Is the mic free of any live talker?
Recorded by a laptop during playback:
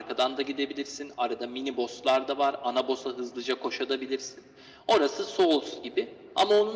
Yes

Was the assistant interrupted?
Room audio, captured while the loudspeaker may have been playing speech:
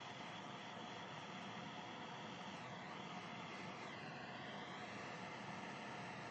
No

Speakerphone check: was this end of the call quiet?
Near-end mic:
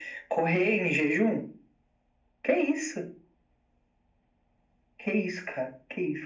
Yes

